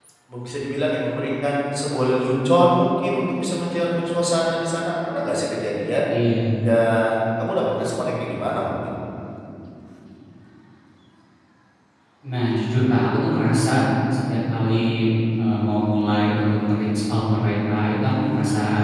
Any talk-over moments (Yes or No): No